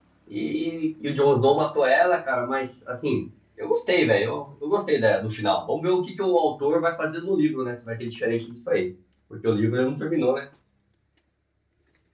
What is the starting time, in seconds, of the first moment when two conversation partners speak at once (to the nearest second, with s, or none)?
none